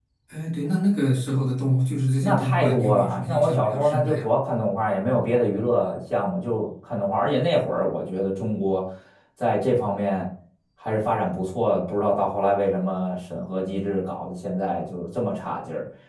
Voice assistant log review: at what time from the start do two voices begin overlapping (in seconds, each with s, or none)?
2.2 s